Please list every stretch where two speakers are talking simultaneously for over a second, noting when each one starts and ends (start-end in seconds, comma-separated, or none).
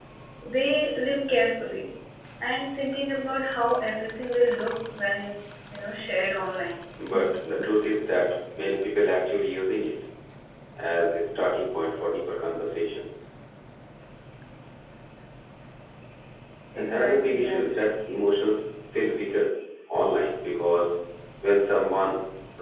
16.8-18.0